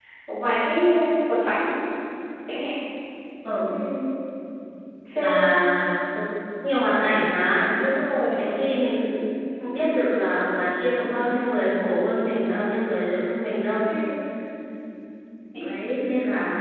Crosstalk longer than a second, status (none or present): none